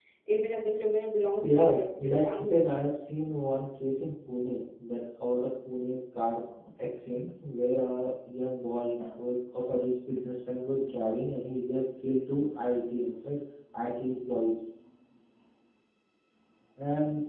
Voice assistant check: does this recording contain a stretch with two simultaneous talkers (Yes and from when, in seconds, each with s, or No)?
Yes, from 1.4 s